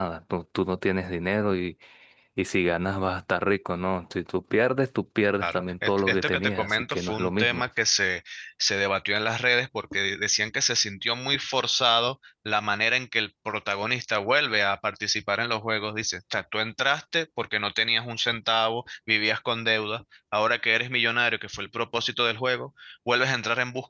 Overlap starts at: 5.4 s

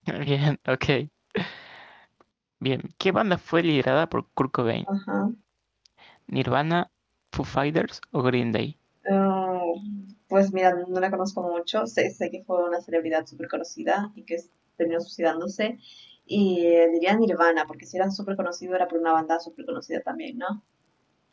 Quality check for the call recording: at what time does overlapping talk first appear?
none

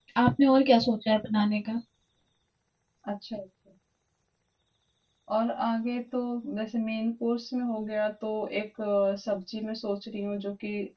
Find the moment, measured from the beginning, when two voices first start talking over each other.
none

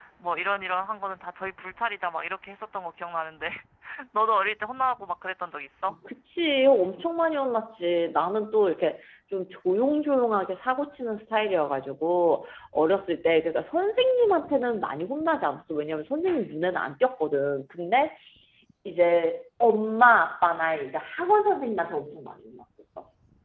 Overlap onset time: none

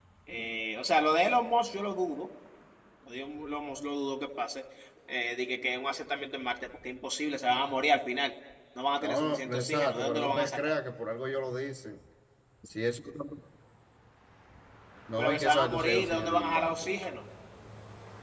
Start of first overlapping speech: 9.0 s

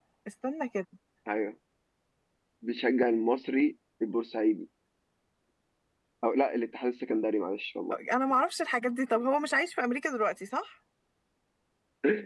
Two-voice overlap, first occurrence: none

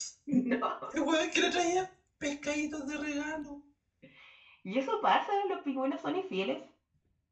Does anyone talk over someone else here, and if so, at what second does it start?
none

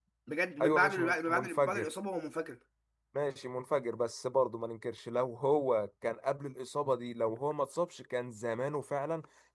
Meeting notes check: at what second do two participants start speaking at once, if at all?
0.6 s

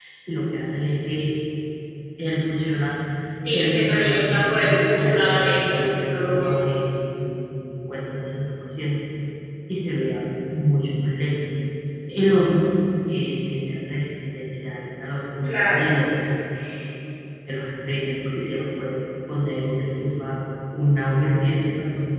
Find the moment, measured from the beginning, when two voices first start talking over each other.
3.5 s

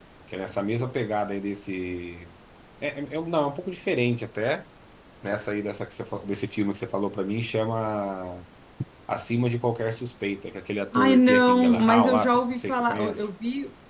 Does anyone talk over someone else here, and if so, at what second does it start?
10.9 s

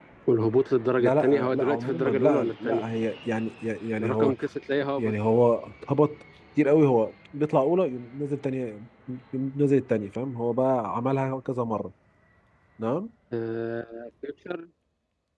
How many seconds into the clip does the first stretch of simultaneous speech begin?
1.0 s

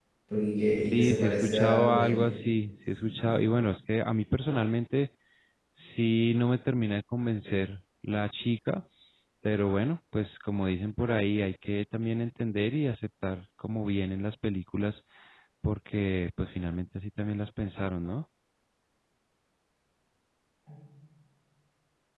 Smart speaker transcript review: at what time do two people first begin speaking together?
0.8 s

